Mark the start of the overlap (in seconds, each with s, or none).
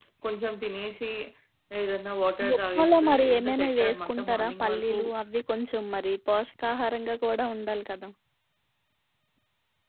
2.5 s